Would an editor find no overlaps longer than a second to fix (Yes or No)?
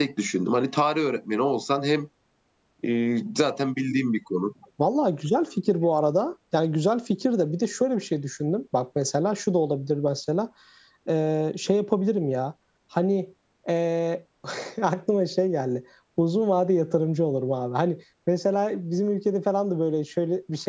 Yes